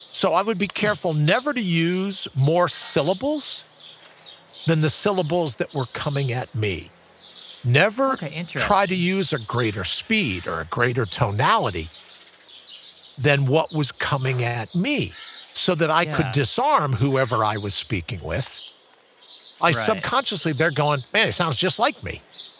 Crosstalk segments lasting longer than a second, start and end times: none

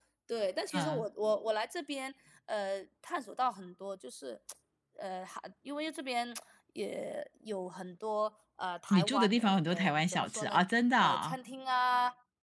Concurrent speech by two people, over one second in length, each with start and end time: 8.9-10.6

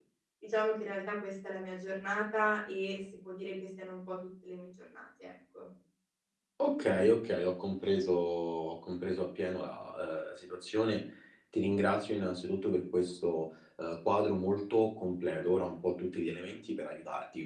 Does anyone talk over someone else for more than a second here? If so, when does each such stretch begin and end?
none

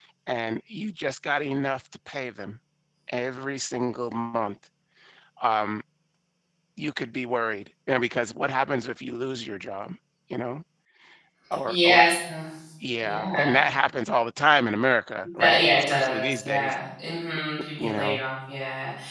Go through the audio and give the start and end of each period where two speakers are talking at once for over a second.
15.4-16.7

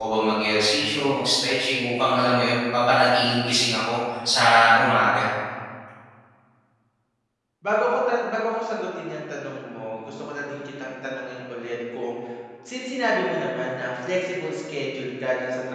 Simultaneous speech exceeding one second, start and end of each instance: none

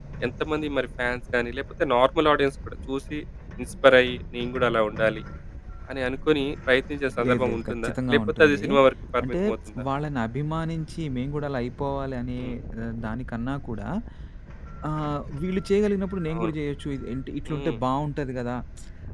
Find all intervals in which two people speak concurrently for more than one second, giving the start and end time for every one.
7.3-8.6

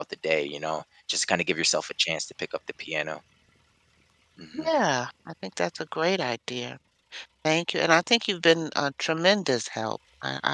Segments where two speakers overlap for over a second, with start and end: none

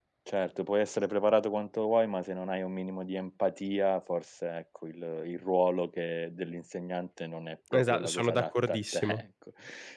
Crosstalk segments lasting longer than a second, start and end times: 7.7-9.2

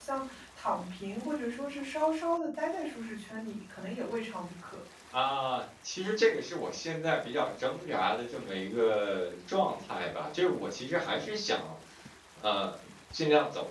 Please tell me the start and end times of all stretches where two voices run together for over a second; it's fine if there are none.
none

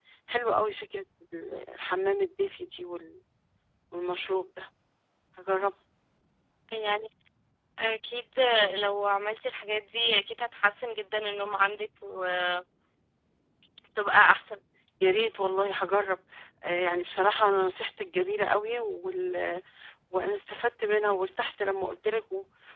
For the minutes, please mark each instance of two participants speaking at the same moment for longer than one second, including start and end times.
none

